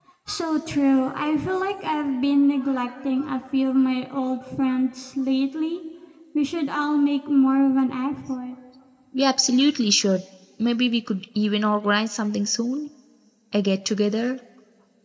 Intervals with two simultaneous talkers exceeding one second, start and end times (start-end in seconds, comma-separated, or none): none